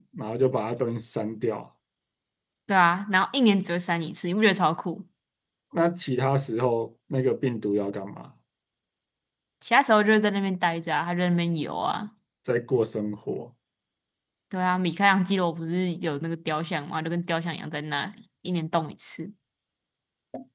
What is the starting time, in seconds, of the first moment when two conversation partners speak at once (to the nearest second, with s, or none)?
none